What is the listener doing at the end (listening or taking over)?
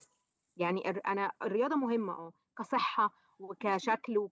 listening